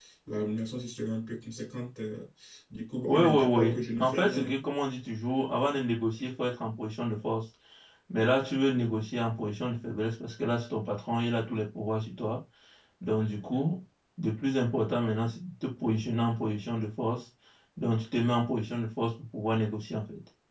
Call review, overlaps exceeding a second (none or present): present